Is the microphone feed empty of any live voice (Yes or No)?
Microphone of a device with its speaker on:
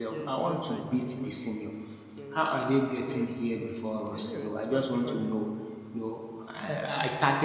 No